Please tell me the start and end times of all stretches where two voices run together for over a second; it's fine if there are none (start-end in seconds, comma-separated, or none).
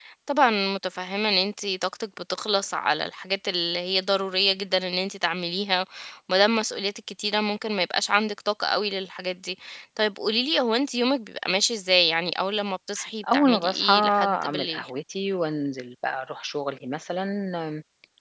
13.3-14.9